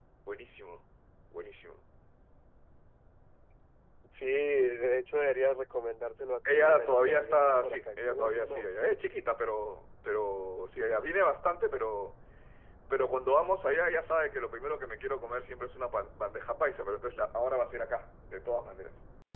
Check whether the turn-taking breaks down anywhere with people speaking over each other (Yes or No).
Yes